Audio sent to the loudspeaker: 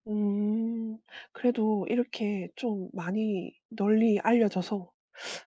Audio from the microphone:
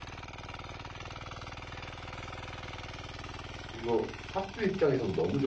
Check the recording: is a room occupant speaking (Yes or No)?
Yes